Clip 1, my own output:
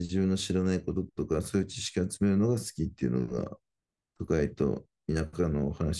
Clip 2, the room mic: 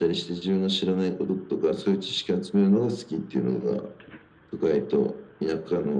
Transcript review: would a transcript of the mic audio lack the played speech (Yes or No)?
No